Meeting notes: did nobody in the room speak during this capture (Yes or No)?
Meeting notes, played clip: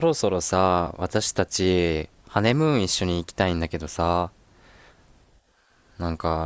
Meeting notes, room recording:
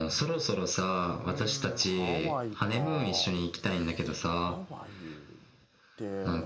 No